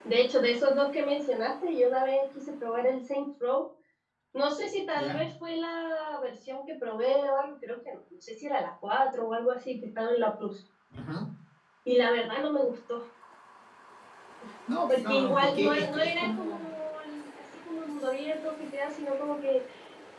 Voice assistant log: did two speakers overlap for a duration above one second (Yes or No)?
Yes